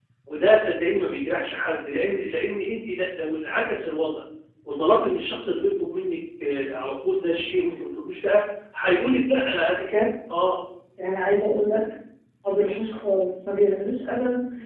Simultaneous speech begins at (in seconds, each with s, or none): none